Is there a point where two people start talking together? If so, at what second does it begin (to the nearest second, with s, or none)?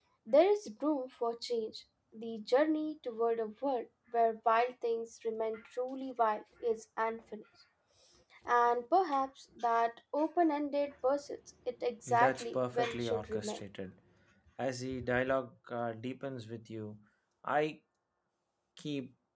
12 s